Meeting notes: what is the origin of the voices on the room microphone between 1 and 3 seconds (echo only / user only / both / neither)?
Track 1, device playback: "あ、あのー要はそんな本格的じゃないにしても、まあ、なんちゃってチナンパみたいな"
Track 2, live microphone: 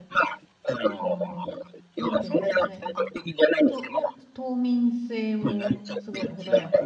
both